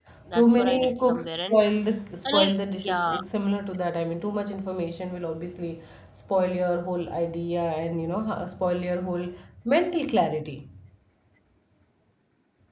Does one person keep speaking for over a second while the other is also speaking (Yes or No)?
Yes